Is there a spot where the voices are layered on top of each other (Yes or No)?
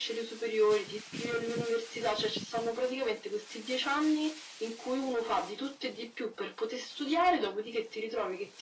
No